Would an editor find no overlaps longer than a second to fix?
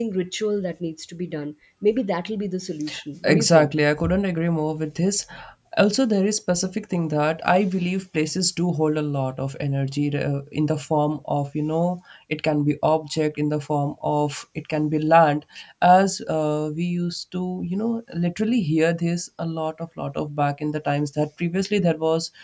Yes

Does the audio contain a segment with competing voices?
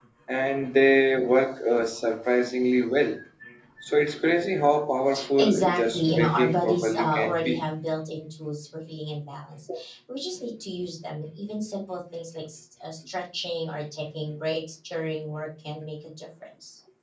Yes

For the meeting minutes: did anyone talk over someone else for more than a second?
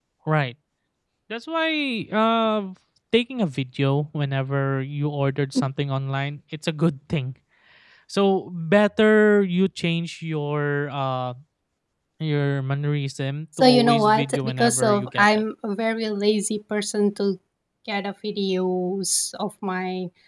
Yes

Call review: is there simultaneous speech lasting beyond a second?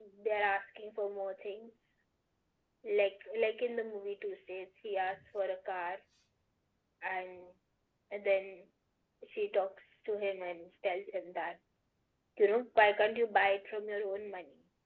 No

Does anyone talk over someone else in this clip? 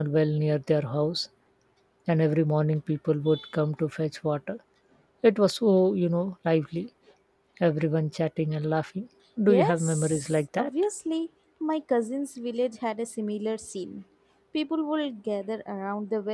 Yes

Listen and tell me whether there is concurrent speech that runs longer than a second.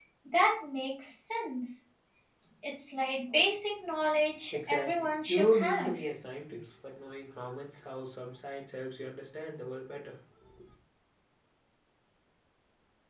Yes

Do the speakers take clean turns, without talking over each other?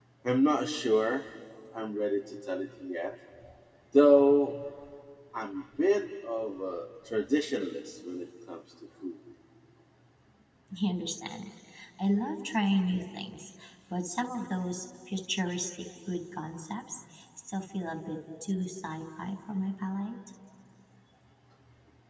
Yes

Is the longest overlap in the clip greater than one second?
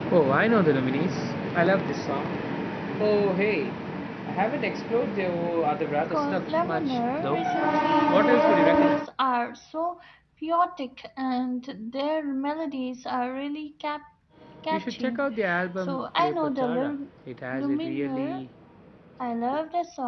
Yes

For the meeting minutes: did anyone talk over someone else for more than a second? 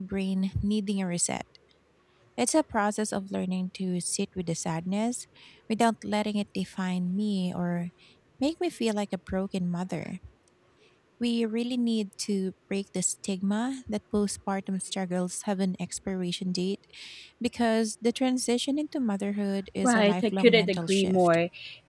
Yes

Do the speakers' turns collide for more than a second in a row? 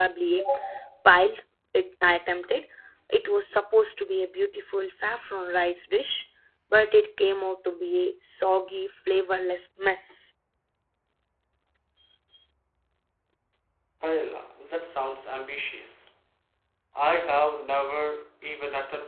No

